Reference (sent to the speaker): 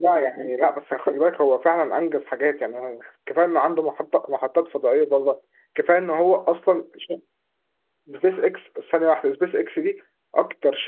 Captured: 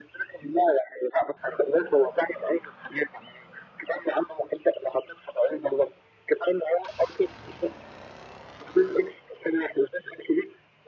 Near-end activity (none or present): none